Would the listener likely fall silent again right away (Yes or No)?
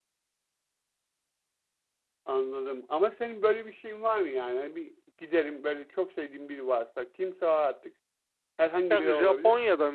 No